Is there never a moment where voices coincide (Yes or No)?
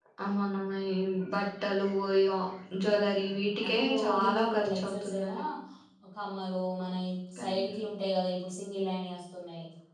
No